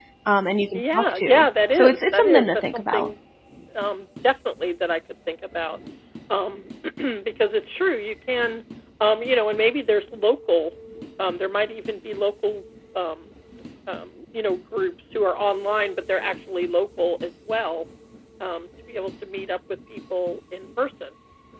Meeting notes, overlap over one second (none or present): present